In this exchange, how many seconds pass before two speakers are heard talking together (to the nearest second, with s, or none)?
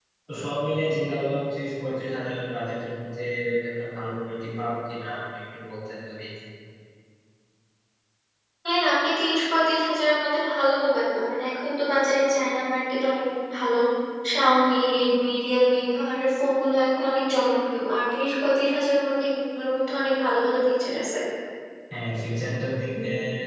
none